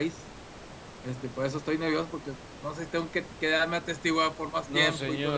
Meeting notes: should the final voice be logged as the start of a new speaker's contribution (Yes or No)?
Yes